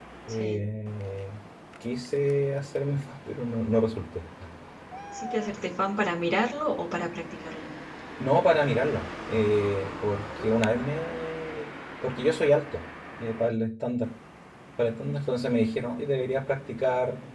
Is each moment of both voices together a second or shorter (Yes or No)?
Yes